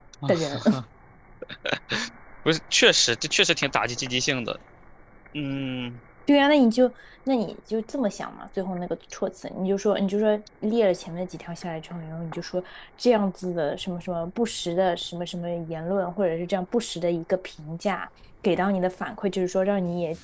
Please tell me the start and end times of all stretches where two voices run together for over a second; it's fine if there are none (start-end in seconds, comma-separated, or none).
none